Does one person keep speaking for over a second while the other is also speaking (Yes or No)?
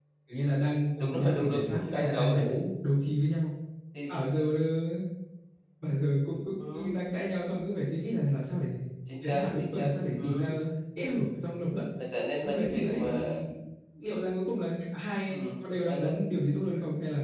Yes